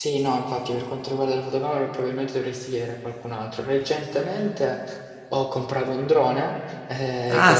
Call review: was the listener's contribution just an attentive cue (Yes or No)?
Yes